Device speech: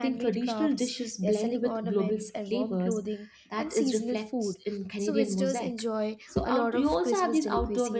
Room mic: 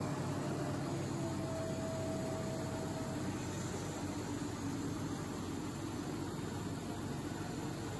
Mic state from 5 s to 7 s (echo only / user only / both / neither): neither